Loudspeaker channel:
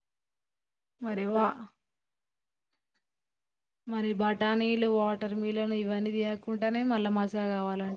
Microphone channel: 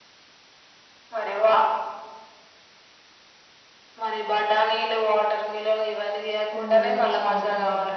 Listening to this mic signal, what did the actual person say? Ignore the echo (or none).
మా మమ్మీని ఒక స్ప్రైట్ అన్నది